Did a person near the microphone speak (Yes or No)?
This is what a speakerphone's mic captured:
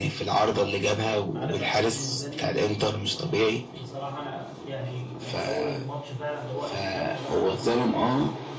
Yes